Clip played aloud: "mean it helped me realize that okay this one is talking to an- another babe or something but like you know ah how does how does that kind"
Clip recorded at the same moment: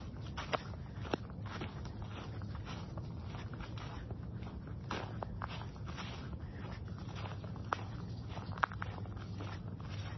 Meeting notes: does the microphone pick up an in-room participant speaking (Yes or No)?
No